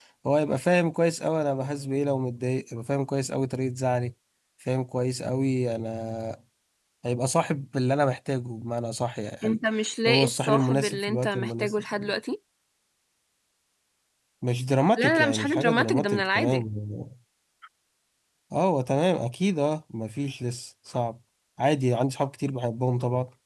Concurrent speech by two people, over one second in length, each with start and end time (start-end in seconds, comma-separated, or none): 10.1-11.8, 15.0-16.6